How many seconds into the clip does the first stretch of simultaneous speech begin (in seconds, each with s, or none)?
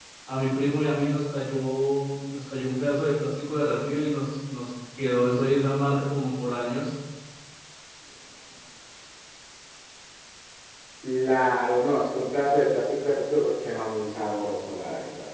none